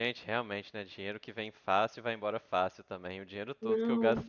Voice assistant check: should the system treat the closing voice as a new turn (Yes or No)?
No